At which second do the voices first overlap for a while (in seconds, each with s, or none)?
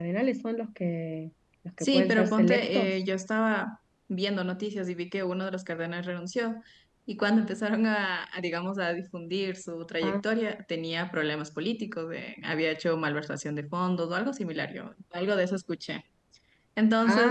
1.8 s